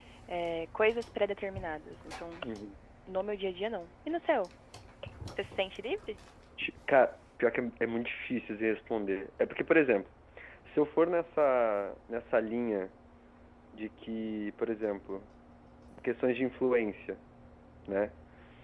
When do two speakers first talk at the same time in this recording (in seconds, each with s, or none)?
none